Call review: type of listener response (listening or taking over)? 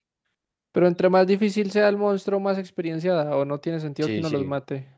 taking over